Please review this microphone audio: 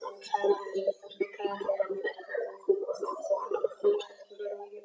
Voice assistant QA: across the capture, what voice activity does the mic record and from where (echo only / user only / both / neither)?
echo only